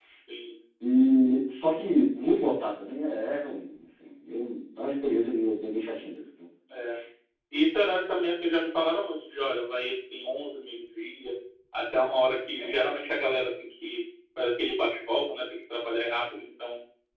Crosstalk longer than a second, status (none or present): none